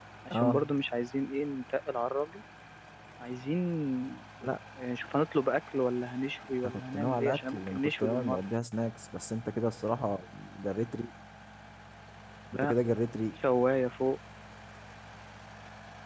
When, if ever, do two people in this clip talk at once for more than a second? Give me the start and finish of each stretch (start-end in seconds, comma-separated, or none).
6.6-8.4